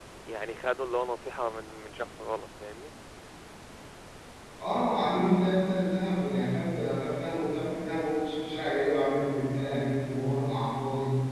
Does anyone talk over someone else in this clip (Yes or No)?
No